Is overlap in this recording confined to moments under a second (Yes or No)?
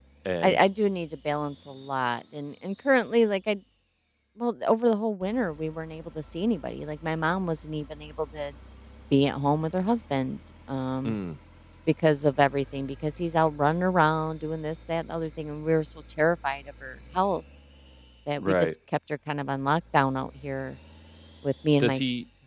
Yes